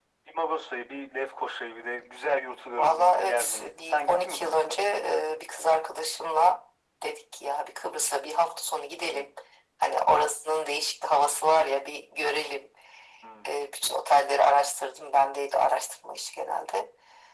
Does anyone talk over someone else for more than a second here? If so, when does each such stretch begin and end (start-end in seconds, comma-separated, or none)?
2.8-4.8